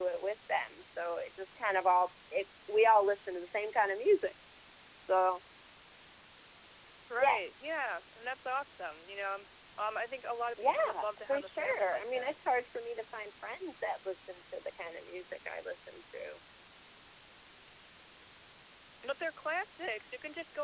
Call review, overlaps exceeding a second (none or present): present